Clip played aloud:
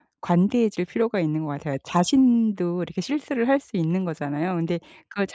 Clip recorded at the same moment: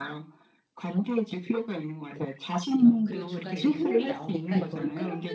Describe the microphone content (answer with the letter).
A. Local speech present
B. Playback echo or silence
A